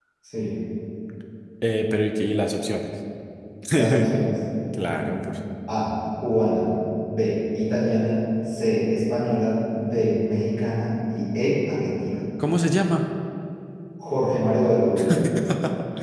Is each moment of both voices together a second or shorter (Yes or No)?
Yes